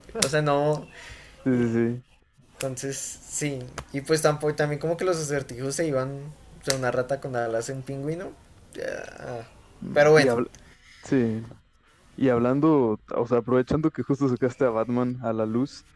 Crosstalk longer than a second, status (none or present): none